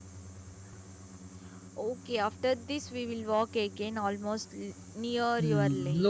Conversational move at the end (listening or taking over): taking over